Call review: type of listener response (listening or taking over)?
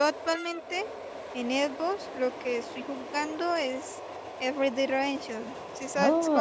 taking over